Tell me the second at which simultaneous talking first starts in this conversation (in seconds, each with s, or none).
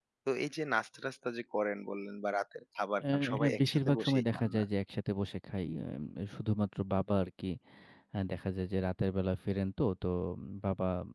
3.0 s